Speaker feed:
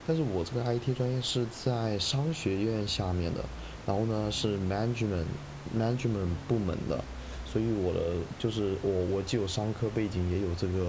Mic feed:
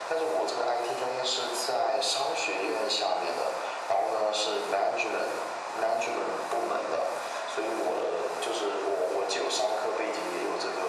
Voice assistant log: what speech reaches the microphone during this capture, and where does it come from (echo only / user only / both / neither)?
echo only